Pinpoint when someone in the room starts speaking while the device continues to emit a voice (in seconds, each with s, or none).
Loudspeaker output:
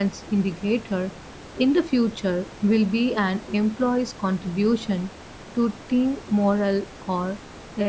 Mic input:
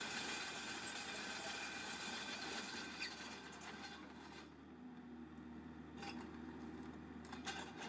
none